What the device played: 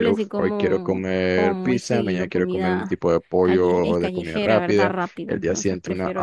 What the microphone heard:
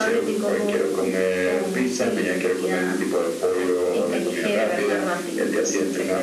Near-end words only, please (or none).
none